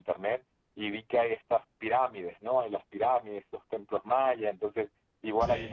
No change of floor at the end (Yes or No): Yes